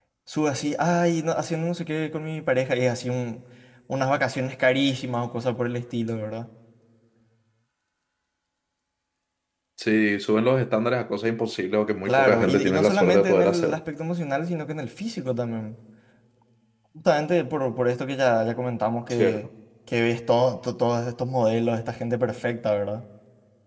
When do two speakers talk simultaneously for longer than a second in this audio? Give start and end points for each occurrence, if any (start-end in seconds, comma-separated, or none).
12.1-13.8